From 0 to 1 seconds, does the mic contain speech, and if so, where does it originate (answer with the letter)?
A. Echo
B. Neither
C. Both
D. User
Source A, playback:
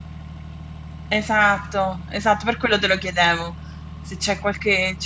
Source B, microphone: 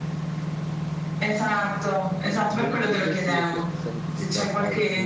B